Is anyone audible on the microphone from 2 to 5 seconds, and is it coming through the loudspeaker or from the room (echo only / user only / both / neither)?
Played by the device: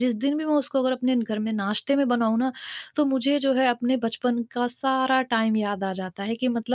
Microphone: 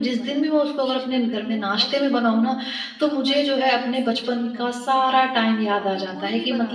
both